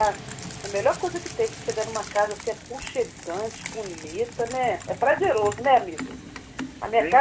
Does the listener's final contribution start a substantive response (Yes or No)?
No